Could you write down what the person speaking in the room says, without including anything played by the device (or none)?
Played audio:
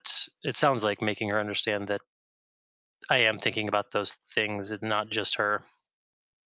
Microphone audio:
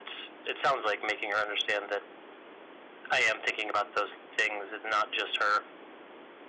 none